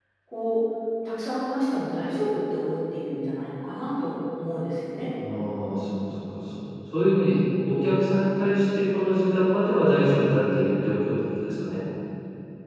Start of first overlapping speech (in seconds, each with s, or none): none